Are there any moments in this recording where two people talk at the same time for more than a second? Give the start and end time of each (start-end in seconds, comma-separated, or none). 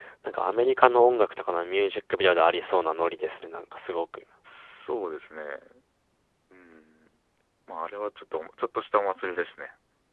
none